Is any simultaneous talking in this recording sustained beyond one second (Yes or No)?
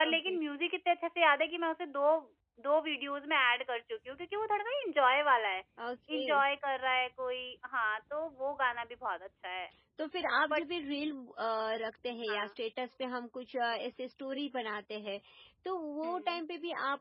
No